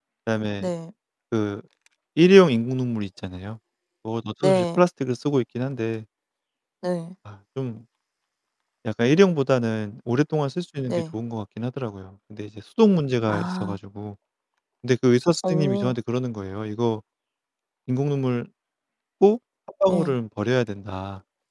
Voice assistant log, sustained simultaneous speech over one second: none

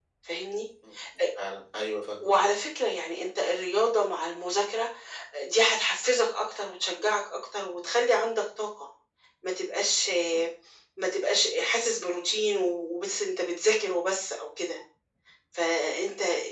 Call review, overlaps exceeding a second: none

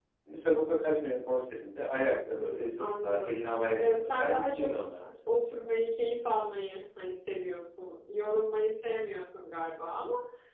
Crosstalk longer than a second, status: present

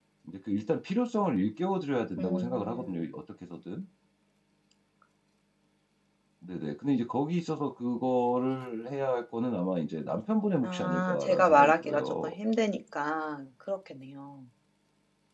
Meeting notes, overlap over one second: present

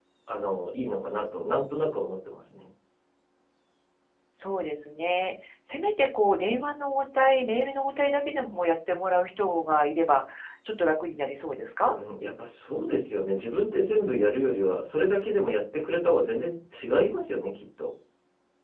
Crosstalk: none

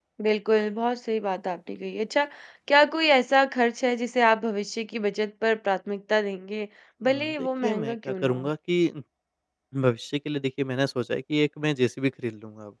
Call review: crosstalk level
present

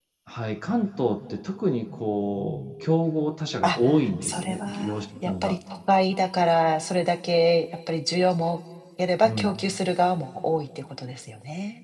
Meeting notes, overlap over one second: present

